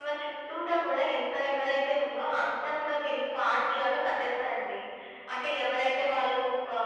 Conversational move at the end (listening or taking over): listening